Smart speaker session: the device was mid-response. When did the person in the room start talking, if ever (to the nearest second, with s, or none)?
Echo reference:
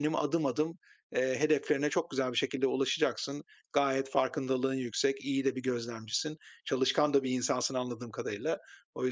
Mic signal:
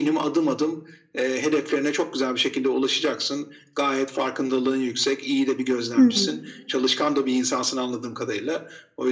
6 s